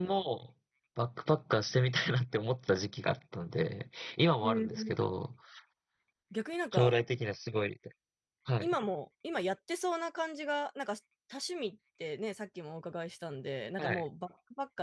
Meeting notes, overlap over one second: none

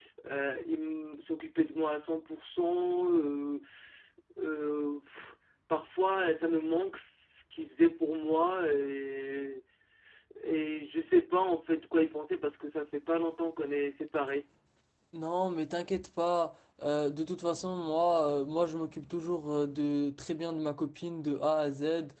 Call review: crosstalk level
none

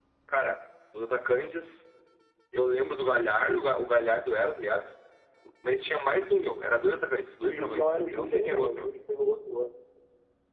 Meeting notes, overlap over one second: present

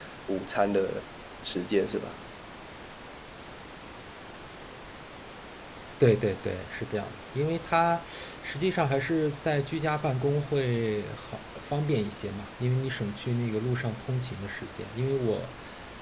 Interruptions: none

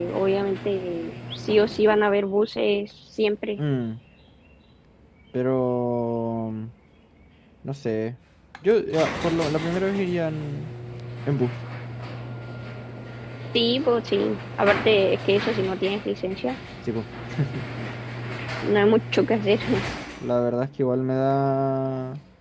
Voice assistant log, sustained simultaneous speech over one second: none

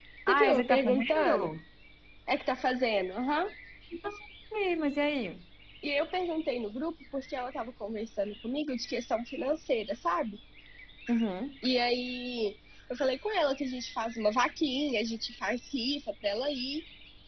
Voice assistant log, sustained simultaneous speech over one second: present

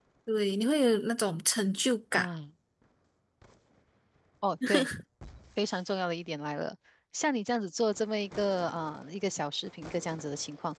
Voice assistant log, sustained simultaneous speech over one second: none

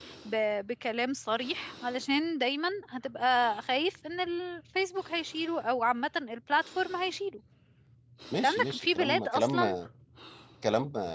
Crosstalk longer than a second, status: present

